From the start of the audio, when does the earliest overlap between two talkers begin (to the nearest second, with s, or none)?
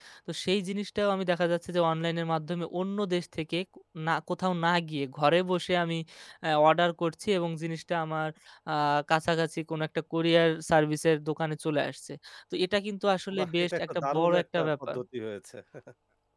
13 s